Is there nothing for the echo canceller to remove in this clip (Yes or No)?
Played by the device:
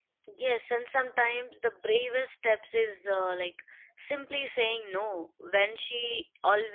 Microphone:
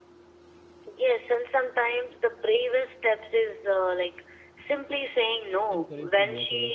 No